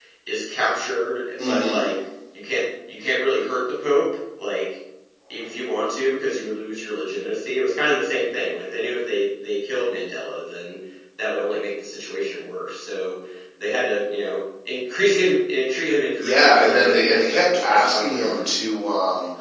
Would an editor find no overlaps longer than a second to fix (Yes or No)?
No